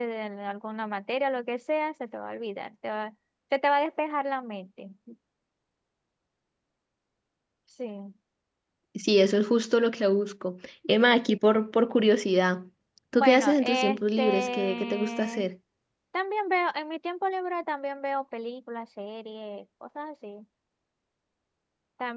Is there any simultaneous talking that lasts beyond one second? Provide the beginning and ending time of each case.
13.1-15.5

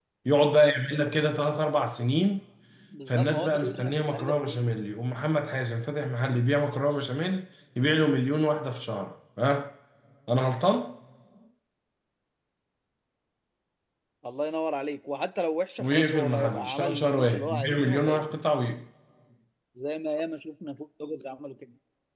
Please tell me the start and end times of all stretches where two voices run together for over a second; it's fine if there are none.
3.1-4.6, 15.8-18.2

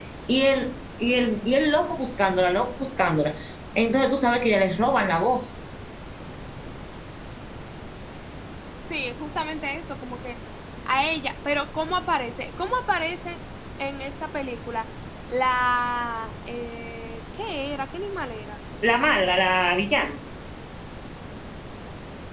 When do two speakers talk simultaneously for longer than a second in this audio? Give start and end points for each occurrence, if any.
none

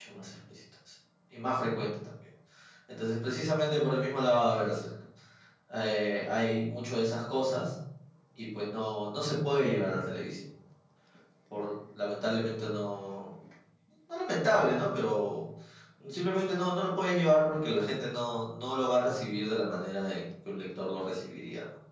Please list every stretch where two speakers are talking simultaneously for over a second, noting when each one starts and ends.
none

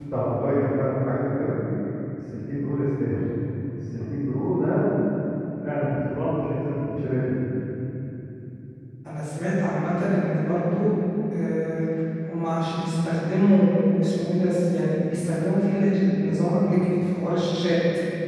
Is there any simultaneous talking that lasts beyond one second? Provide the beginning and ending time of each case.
none

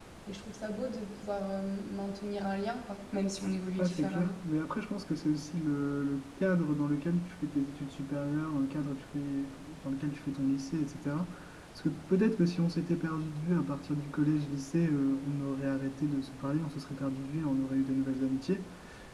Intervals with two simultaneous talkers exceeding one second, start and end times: none

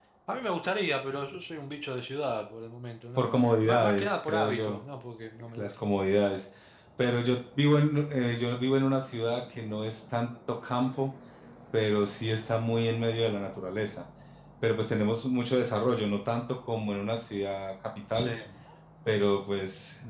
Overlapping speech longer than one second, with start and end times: 3.2-4.8

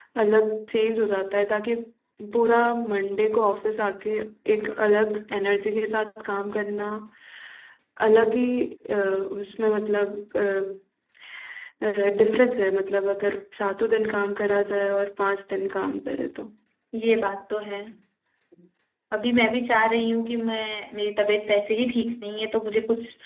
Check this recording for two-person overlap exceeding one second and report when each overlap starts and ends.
none

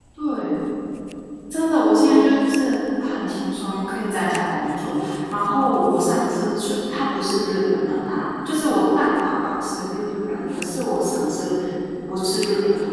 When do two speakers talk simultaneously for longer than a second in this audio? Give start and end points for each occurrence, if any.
none

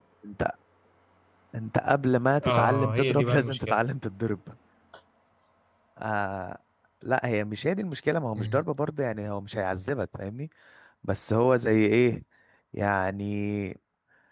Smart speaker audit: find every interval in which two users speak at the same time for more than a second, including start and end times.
2.5-3.8

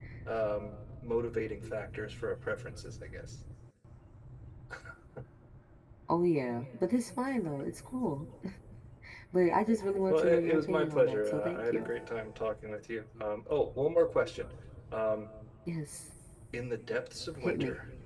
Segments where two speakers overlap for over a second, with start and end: 10.1-11.9

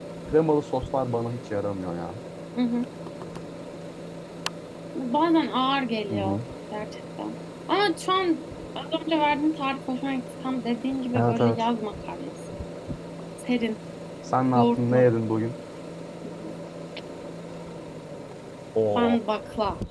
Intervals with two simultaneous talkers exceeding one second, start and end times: none

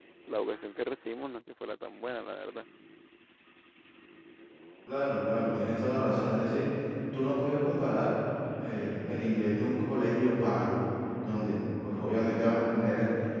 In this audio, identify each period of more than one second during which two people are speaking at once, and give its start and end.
none

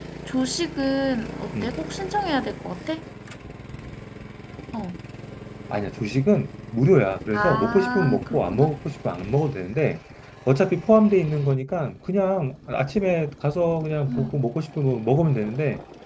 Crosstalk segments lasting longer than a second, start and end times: 7.3-8.7

